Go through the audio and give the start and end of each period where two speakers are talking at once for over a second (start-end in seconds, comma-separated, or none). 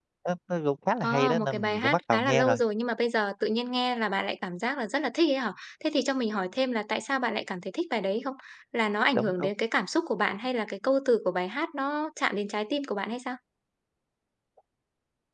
1.0-2.6